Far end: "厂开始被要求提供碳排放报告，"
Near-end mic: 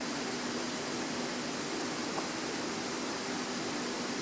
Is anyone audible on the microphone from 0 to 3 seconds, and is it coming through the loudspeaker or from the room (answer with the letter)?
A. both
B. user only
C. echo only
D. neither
D